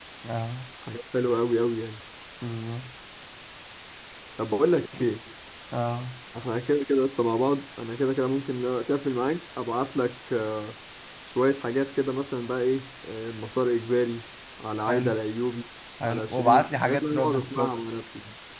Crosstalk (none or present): present